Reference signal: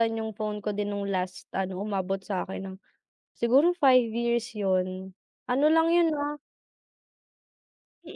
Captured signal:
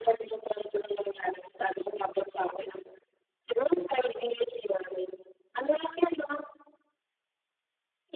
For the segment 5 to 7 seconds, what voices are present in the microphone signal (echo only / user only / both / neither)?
echo only